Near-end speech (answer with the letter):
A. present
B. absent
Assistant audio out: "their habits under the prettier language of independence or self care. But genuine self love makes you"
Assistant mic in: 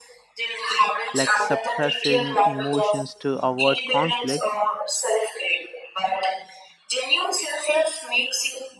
A